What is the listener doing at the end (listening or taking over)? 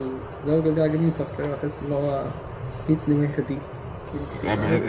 taking over